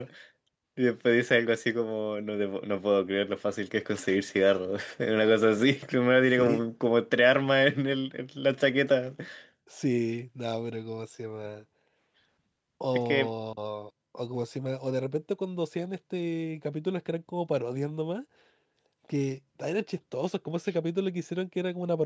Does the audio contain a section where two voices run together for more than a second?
No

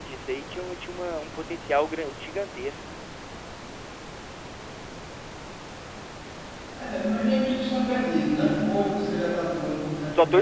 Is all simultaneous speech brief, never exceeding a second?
Yes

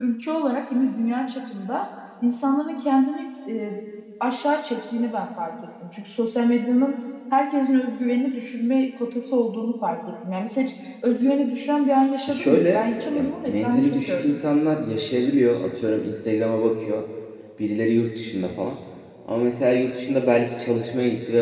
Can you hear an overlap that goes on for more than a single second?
Yes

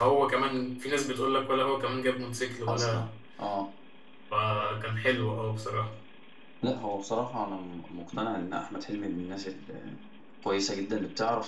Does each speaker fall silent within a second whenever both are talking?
Yes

